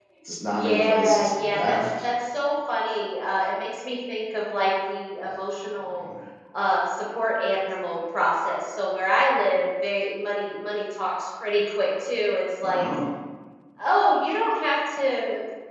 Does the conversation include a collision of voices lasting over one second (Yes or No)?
Yes